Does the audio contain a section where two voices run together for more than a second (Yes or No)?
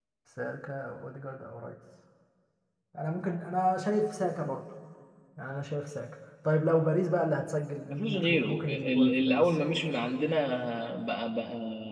Yes